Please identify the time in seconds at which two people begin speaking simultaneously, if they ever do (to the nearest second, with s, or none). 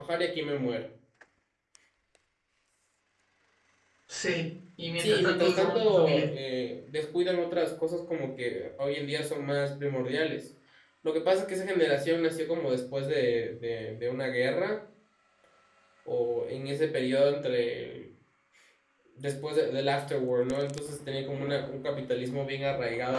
5 s